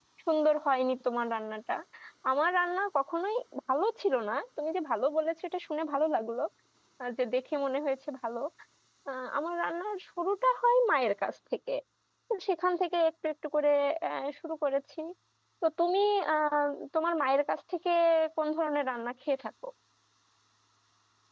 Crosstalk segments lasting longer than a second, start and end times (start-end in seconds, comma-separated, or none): none